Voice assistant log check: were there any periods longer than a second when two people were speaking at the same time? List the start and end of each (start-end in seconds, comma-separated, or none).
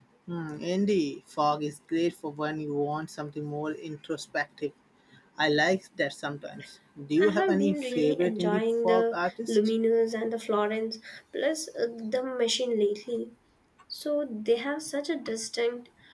7.2-9.6